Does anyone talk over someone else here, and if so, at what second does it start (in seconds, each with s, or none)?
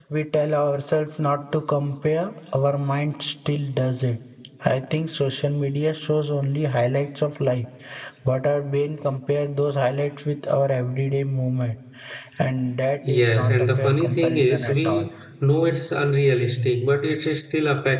13.1 s